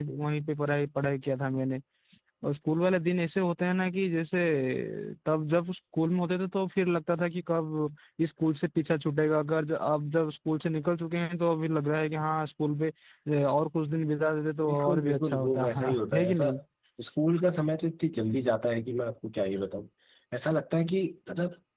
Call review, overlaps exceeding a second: present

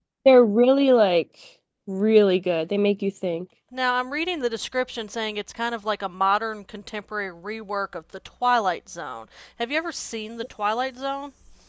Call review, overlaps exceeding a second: none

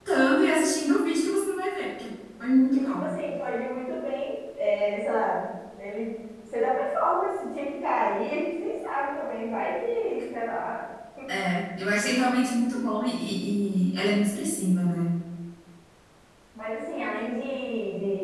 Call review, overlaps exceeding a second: none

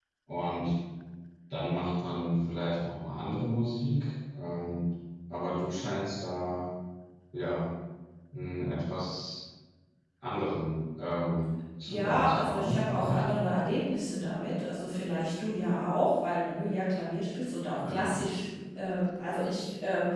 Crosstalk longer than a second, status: present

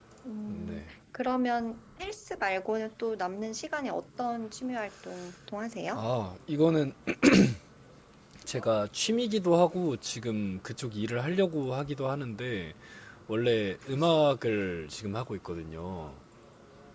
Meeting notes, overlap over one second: none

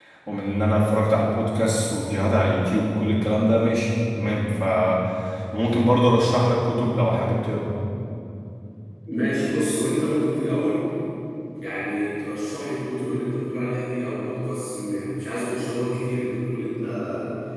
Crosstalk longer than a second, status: none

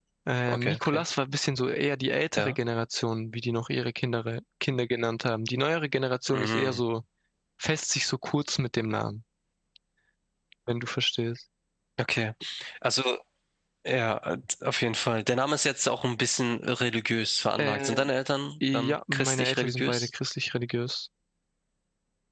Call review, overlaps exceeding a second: present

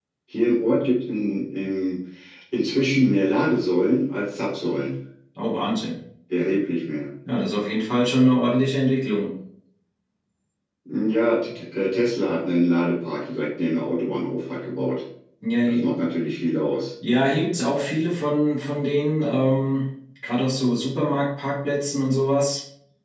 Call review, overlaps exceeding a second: none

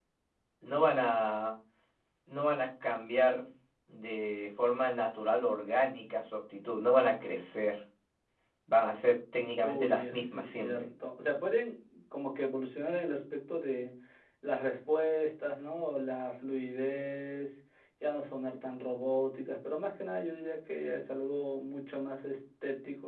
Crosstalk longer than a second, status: present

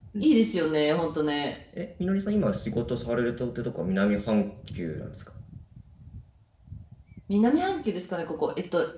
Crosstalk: none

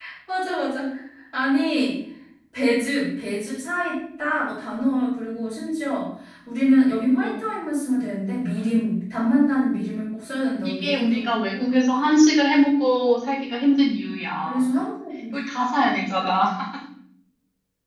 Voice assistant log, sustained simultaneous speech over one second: present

